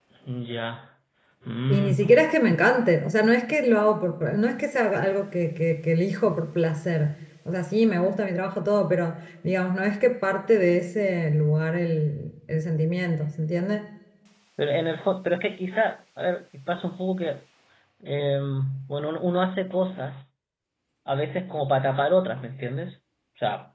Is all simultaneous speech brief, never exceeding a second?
Yes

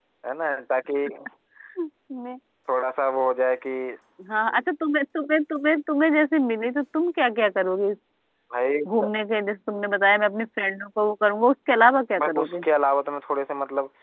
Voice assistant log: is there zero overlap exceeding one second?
Yes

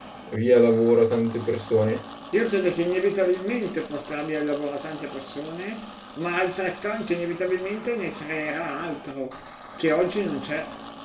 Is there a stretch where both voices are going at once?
No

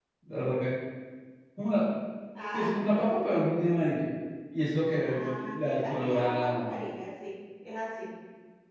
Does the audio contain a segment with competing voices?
Yes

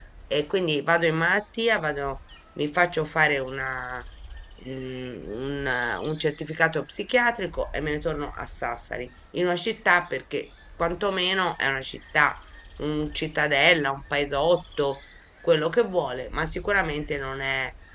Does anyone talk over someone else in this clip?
No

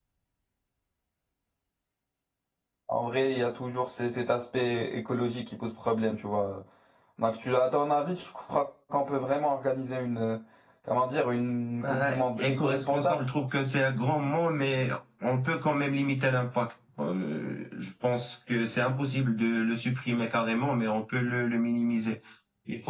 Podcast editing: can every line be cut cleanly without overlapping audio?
No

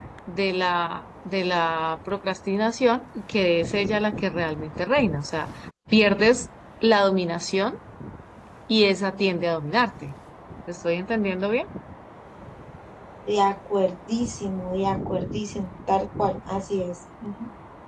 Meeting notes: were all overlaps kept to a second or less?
Yes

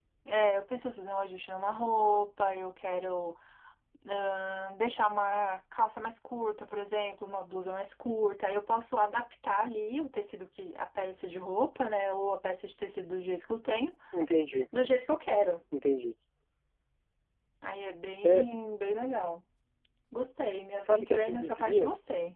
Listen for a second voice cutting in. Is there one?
Yes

